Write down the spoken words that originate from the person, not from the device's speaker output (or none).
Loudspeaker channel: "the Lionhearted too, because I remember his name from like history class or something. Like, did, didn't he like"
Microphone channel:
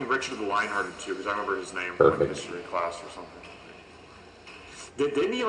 Perfect.